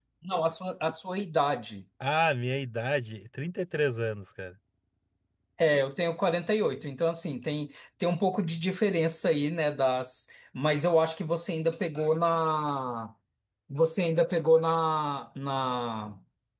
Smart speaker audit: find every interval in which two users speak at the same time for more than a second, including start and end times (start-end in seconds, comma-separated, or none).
none